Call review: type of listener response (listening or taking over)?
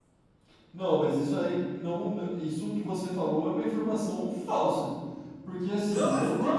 taking over